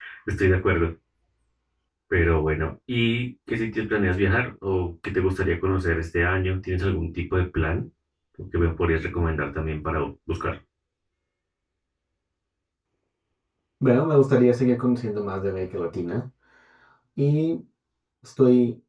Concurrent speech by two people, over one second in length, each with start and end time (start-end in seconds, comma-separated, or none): none